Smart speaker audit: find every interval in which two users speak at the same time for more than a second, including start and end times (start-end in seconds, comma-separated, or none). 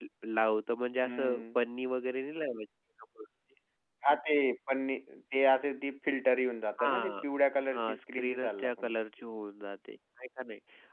7.7-9.0